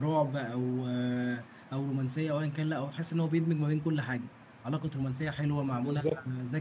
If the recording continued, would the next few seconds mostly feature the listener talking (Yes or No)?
No